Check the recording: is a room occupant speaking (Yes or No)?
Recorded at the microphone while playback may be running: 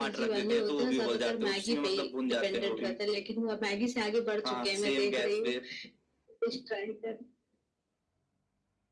No